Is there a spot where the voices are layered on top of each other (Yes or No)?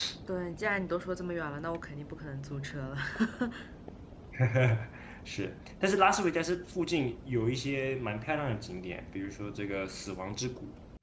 No